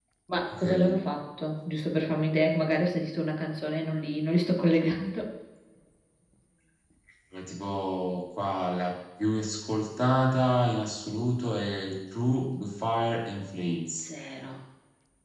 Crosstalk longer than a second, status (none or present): none